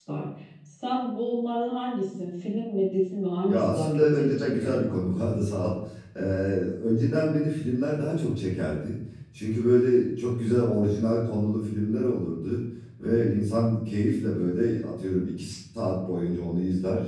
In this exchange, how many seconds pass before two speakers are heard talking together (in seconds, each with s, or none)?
3.5 s